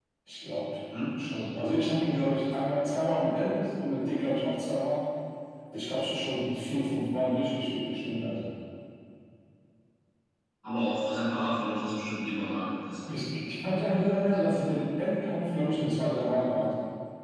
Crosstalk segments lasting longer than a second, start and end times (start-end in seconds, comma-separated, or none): none